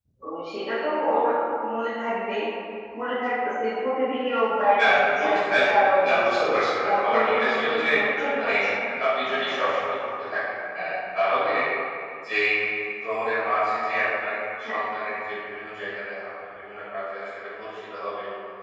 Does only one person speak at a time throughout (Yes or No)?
No